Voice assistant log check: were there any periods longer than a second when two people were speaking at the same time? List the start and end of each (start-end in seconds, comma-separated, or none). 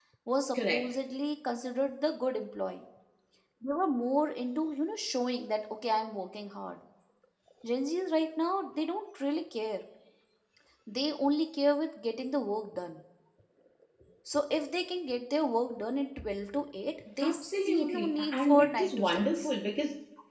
17.2-19.5